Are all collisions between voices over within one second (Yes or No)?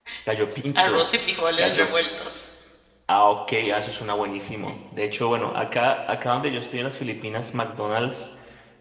Yes